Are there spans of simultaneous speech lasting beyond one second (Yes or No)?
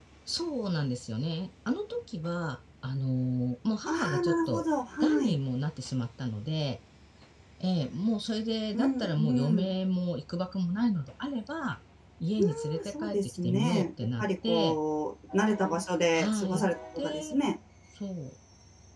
Yes